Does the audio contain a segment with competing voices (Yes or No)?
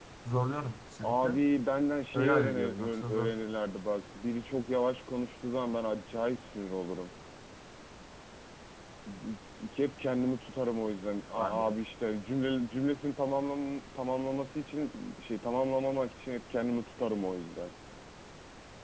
Yes